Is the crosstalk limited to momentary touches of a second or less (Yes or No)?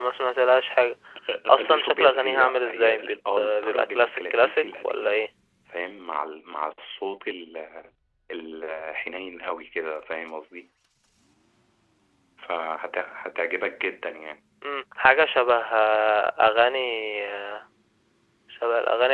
No